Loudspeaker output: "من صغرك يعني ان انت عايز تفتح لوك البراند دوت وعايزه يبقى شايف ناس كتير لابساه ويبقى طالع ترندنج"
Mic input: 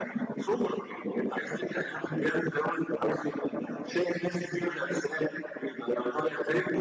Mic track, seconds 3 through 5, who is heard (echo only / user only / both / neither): echo only